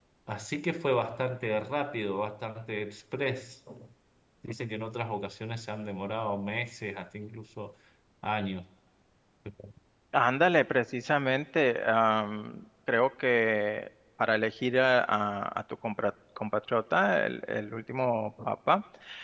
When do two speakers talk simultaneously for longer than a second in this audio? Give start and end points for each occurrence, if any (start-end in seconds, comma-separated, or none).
none